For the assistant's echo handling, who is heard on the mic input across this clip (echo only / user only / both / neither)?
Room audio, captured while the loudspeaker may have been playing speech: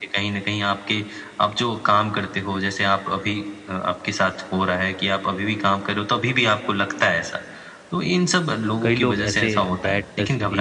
both